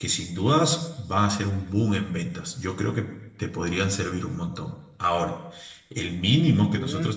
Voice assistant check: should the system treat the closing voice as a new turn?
No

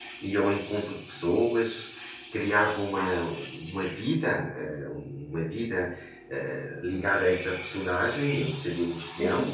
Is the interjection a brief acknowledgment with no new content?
Yes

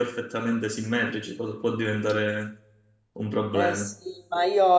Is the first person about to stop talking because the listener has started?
Yes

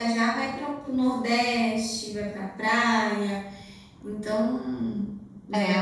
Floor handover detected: Yes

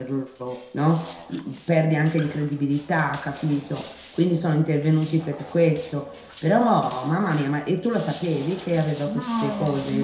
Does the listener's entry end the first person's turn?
Yes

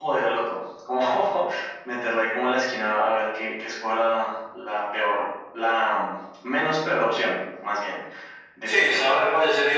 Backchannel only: No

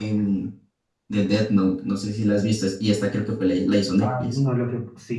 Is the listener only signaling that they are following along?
No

